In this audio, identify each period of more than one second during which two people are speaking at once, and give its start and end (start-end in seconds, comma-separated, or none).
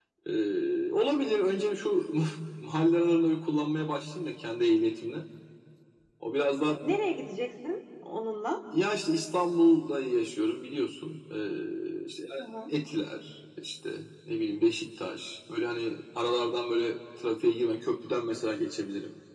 none